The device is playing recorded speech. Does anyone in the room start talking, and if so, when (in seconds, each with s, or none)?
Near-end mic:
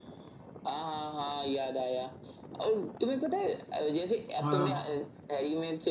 4.4 s